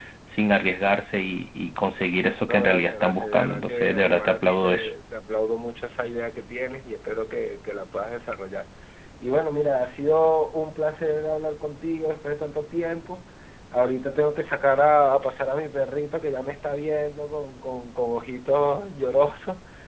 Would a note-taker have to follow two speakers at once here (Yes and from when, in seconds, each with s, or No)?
Yes, from 2.5 s